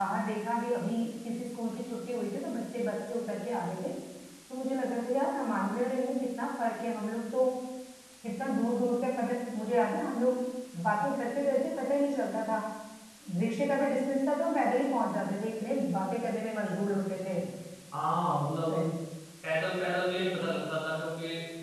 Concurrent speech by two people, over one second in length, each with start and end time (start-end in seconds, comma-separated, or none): none